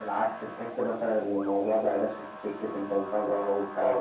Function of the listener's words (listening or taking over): taking over